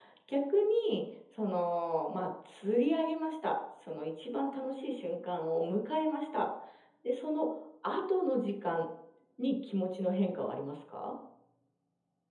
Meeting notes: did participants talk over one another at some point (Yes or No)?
No